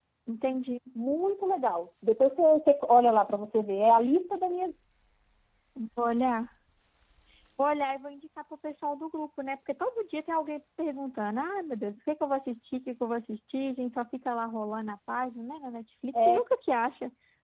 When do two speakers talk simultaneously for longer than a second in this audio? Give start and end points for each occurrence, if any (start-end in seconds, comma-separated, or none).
none